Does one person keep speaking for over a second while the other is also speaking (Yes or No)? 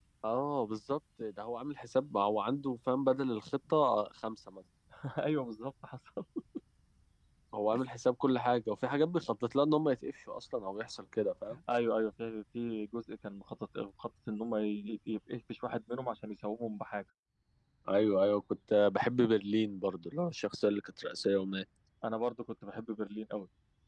No